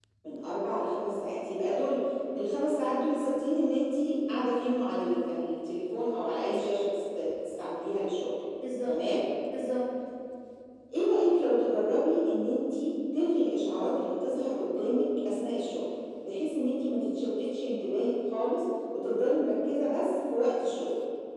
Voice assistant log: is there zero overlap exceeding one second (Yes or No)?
Yes